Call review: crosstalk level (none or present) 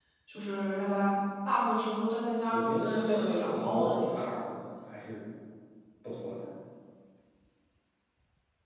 present